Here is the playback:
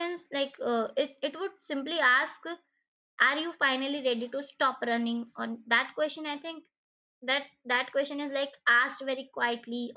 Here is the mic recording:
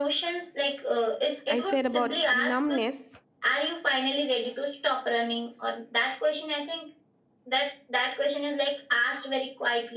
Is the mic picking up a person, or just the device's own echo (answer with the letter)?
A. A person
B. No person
A